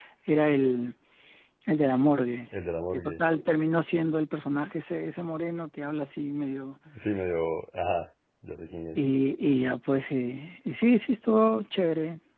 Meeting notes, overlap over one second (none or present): none